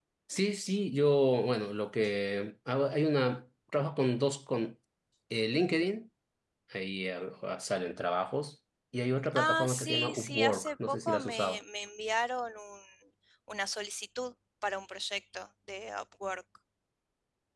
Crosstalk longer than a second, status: present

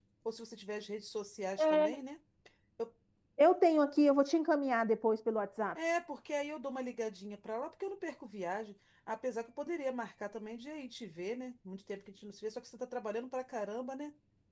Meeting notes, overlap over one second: none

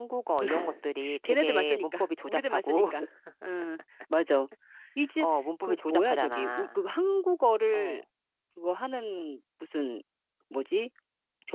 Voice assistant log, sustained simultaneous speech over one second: present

